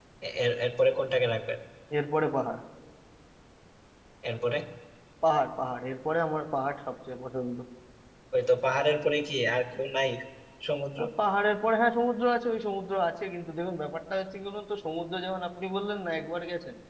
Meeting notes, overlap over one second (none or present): none